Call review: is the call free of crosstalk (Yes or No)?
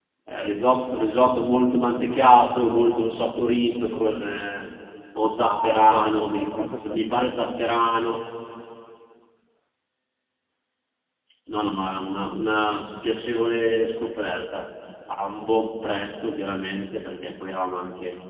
No